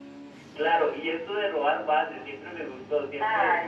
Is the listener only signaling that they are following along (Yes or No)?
No